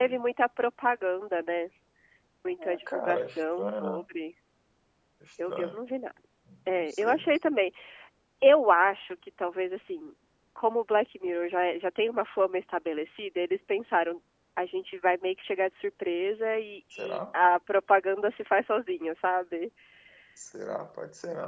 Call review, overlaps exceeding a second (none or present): present